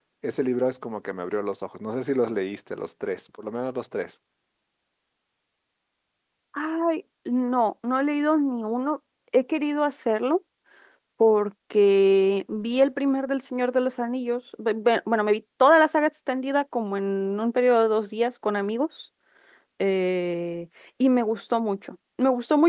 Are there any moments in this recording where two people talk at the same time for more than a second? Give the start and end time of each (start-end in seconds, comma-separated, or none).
none